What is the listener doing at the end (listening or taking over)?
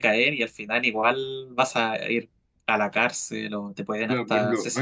taking over